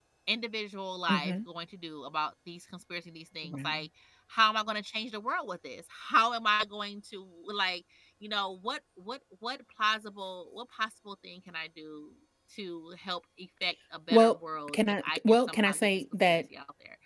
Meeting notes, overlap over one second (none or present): present